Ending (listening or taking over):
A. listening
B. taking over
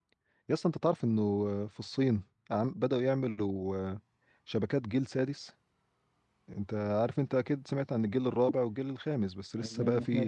B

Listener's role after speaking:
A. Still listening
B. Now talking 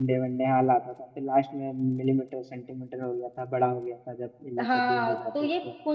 B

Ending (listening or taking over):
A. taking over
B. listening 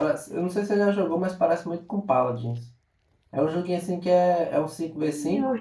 A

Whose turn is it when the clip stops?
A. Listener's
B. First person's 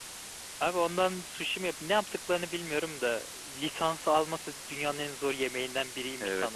A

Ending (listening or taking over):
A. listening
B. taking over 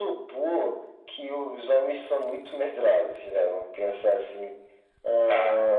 A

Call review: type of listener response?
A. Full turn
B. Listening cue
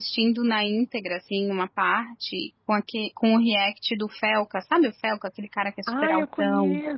A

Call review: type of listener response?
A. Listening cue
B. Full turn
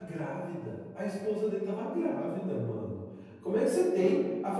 A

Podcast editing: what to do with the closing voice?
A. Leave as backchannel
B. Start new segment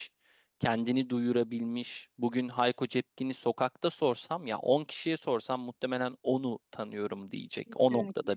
B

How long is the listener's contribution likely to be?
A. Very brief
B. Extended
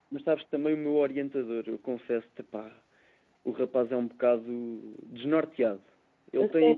A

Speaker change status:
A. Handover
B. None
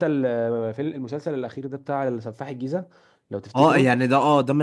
A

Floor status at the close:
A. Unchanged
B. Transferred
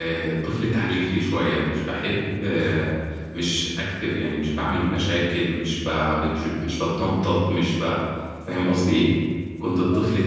A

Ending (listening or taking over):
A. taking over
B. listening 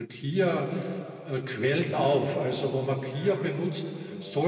B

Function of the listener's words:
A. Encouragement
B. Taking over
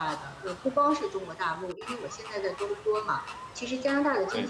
A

